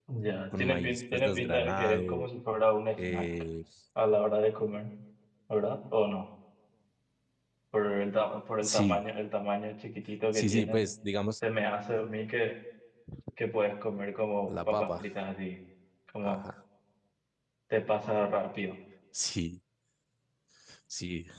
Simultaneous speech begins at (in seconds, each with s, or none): 0.6 s